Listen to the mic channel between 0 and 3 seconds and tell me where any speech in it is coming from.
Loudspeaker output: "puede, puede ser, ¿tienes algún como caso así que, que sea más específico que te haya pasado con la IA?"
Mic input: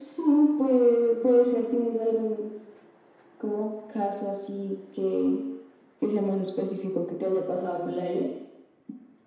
echo only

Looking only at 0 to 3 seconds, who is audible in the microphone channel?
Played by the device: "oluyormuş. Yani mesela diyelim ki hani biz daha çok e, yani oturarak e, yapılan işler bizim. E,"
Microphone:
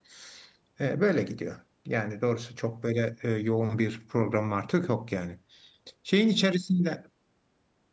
user only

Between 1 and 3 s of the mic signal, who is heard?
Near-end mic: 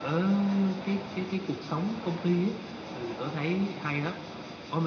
echo only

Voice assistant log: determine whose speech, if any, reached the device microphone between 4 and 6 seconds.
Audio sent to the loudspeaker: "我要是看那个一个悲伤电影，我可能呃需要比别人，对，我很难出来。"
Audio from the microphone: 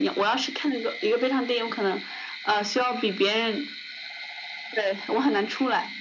echo only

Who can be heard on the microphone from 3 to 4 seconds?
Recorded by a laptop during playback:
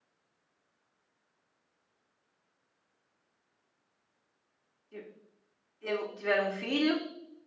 neither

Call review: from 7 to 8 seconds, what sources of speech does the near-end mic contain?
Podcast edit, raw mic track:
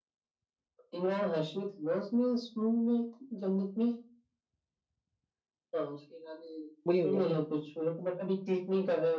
both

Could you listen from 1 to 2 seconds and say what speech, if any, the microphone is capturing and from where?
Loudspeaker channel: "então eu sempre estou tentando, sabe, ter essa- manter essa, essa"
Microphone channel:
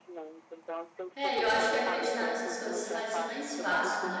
both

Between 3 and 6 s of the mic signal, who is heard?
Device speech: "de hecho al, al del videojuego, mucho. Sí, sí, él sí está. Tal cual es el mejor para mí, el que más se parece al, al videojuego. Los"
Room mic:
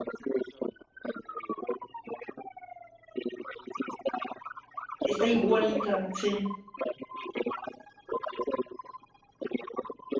both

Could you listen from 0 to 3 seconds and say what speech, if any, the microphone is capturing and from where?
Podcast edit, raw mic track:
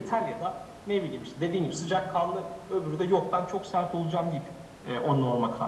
echo only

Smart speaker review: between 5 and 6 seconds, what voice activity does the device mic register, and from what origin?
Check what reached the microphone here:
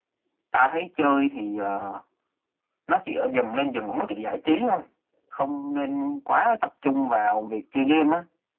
echo only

